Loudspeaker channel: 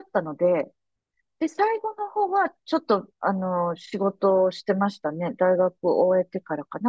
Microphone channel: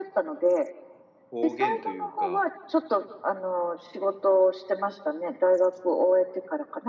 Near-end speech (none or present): present